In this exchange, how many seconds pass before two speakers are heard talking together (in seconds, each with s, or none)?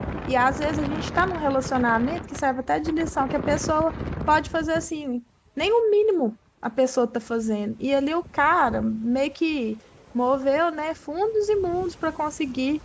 none